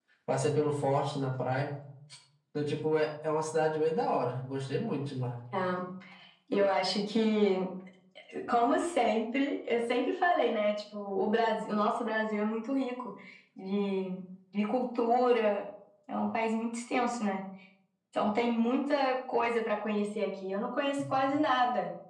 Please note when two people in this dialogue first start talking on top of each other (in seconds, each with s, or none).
none